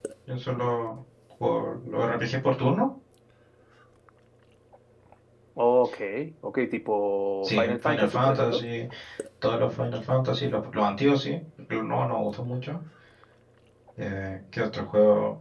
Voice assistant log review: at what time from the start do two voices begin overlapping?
7.4 s

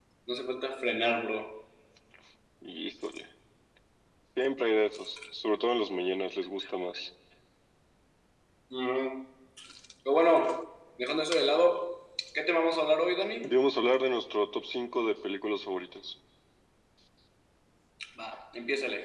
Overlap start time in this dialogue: none

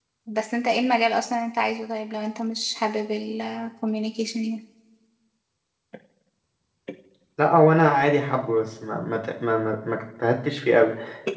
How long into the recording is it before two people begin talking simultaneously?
none

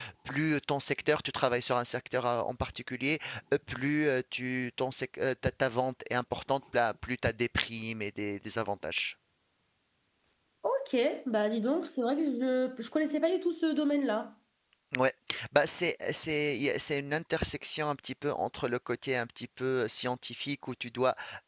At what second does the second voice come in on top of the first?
none

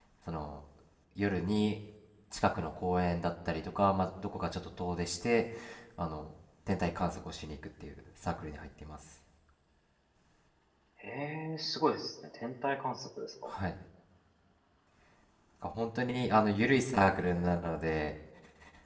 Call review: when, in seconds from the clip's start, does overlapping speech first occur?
none

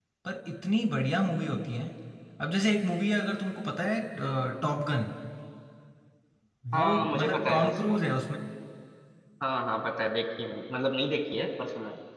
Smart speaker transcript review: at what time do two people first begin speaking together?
6.8 s

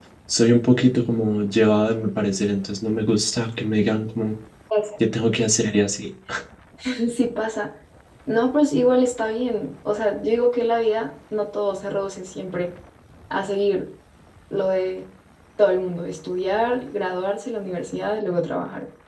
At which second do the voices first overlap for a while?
none

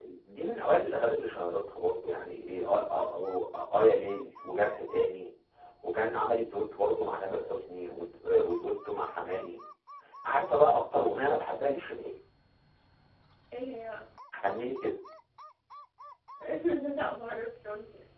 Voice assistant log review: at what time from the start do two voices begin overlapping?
none

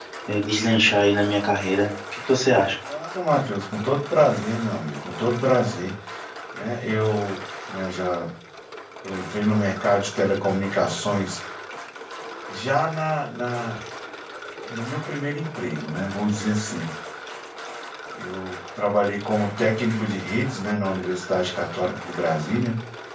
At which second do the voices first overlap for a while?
none

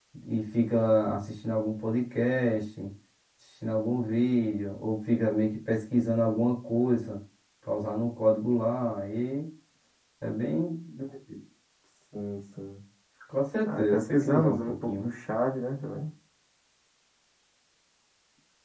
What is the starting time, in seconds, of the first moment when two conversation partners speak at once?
13.7 s

